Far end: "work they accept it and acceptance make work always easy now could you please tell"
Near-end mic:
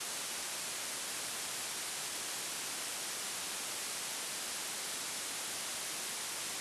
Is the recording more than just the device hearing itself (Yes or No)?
No